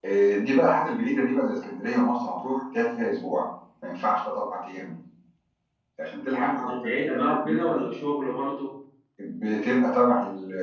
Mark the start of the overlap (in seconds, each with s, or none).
6.3 s